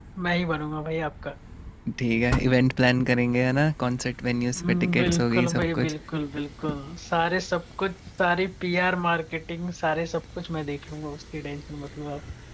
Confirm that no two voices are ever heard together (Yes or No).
No